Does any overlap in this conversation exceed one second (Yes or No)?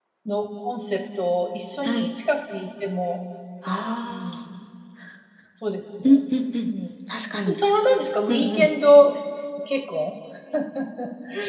No